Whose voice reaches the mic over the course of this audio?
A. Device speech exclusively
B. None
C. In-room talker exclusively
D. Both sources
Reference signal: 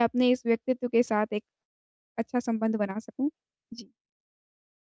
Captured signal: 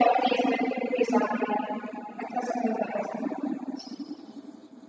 A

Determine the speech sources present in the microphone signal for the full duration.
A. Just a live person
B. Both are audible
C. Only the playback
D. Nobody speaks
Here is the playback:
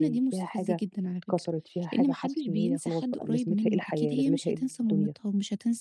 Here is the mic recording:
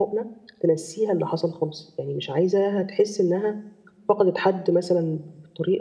A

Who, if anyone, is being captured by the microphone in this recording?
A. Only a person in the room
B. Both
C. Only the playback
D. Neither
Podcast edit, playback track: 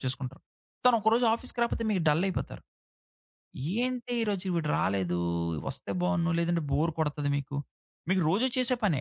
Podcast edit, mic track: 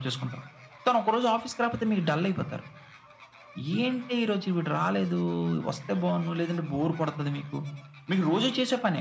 C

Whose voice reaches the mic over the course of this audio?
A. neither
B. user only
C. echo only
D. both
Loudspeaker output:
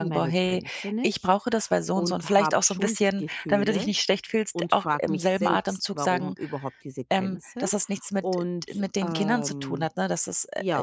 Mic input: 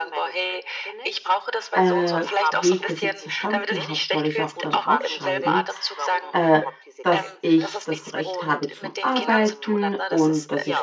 D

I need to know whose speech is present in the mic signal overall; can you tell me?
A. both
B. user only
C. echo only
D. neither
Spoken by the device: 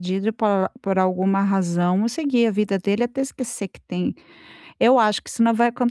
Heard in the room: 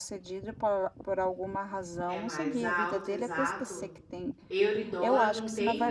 A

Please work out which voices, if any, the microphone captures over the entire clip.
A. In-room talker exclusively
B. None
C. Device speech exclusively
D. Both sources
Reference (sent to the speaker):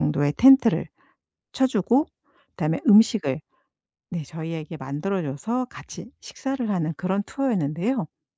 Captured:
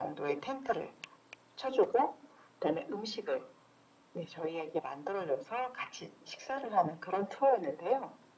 C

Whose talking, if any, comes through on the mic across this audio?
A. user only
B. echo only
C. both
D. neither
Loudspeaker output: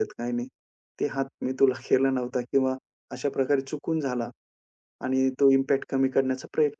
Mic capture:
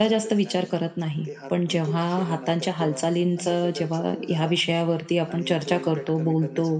C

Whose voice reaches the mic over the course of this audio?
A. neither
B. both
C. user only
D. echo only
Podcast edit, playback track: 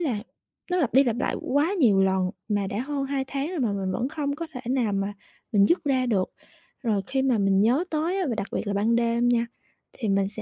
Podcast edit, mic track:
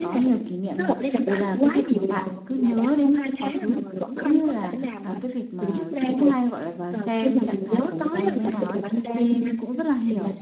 B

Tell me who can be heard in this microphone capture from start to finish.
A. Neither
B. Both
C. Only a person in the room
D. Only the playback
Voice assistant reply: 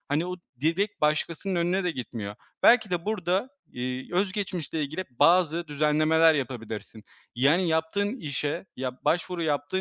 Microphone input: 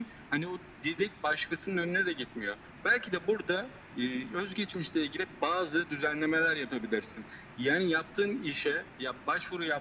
D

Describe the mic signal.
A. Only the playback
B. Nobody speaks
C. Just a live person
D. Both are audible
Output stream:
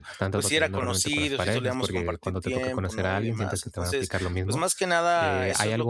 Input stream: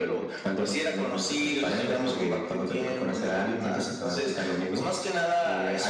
A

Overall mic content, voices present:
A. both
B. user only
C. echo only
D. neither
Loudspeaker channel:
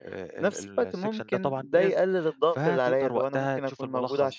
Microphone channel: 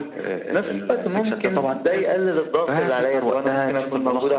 C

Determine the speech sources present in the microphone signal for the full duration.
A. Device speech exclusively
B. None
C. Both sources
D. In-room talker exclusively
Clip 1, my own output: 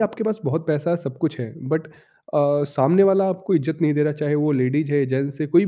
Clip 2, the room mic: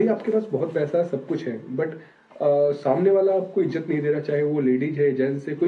A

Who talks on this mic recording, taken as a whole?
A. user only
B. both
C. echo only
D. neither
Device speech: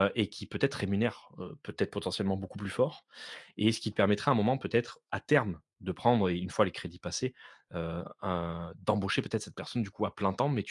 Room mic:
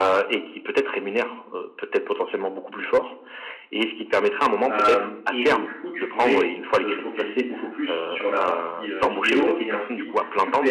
B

